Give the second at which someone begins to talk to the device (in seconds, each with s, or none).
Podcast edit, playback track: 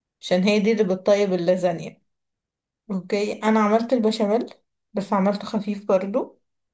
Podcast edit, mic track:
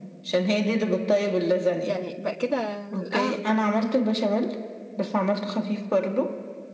1.9 s